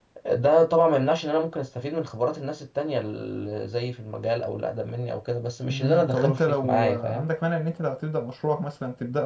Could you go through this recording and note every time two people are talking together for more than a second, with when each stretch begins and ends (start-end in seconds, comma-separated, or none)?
5.7-7.2